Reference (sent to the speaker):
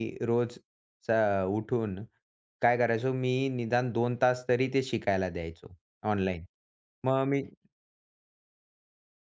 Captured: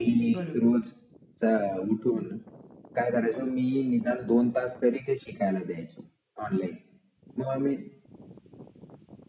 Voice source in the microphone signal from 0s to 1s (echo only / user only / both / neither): both